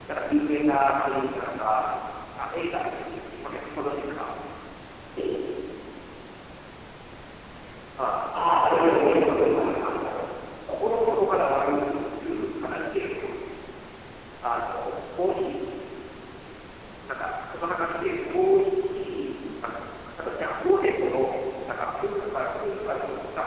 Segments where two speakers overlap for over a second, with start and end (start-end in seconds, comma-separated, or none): 8.8-10.1